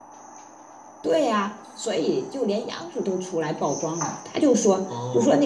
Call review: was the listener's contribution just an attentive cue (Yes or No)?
Yes